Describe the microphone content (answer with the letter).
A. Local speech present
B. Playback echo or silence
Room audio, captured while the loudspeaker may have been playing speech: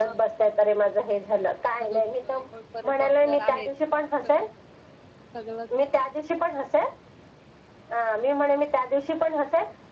A